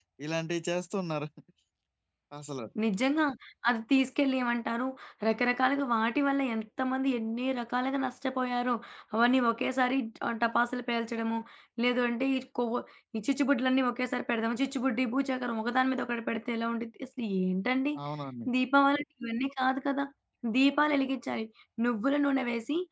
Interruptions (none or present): none